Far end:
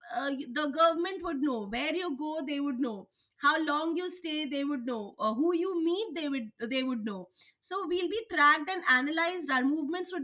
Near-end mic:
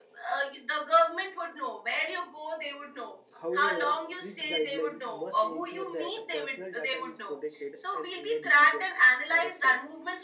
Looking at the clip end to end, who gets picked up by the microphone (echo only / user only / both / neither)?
both